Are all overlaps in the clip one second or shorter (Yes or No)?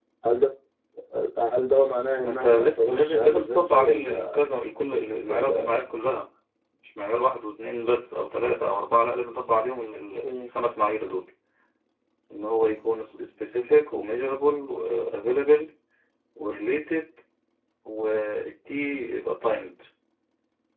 No